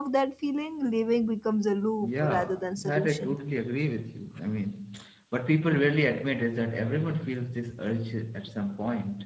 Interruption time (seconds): 2.0 s

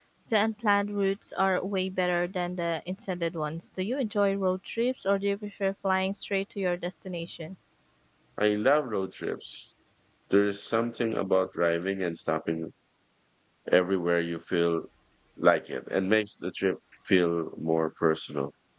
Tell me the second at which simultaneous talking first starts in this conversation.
none

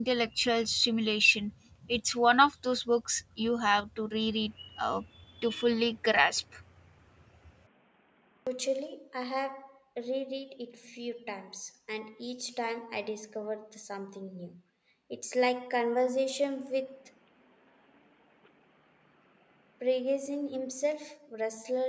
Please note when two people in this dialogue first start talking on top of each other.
none

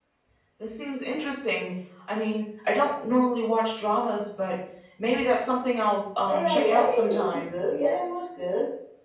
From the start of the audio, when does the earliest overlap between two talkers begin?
6.3 s

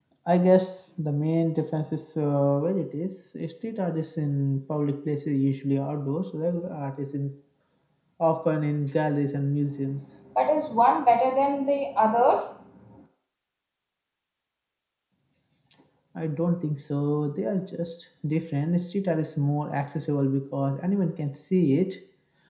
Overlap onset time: none

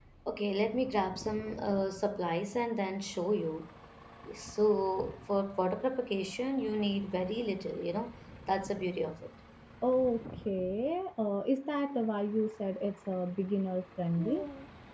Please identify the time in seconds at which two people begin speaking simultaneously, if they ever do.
none

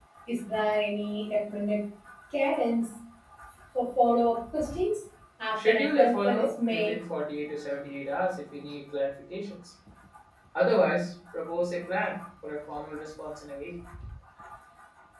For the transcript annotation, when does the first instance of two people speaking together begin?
5.6 s

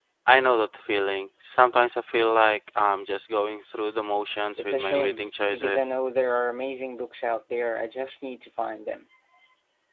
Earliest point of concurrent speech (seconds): 4.6 s

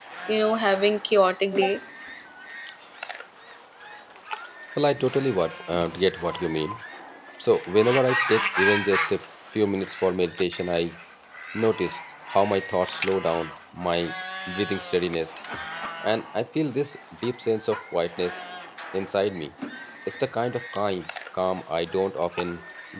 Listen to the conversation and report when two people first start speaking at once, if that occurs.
none

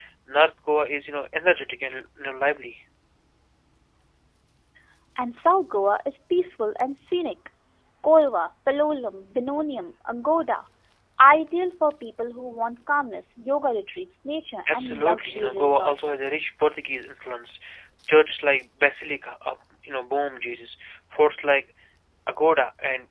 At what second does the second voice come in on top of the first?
14.7 s

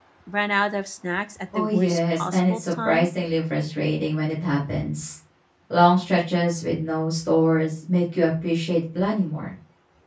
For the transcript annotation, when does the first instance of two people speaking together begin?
1.5 s

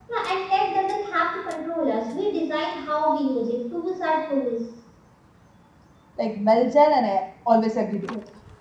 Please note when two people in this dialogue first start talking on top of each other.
none

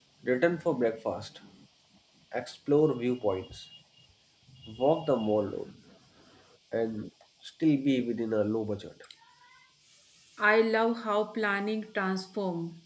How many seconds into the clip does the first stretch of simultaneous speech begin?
none

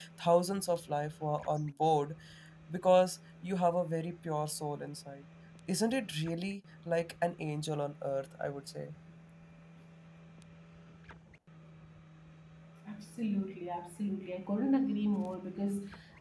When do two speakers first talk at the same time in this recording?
none

